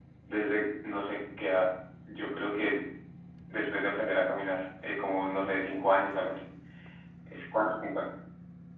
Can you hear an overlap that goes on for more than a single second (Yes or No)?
No